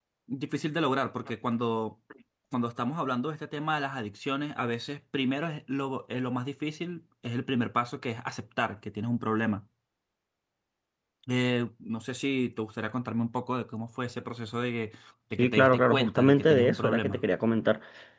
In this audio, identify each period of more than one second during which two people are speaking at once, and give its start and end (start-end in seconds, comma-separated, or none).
15.4-17.2